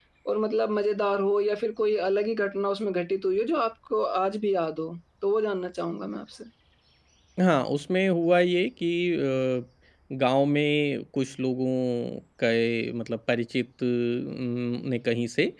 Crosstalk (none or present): none